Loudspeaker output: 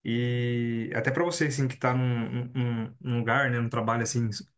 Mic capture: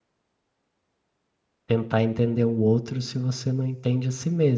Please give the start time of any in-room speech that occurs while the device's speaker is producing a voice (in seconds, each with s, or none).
1.6 s